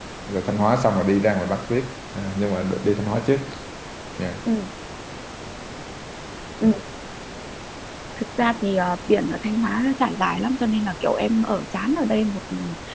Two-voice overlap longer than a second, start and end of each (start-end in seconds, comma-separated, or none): none